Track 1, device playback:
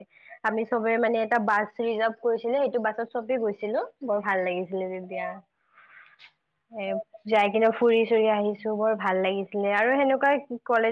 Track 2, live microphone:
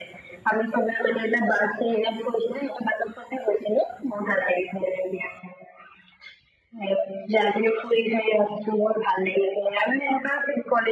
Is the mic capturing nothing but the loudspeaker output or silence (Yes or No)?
Yes